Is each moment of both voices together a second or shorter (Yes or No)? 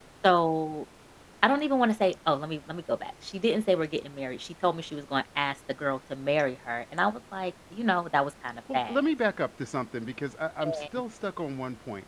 Yes